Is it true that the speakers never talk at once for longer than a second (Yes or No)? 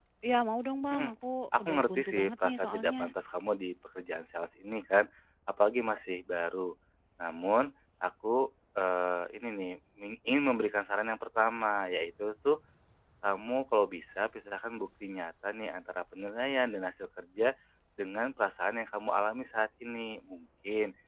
No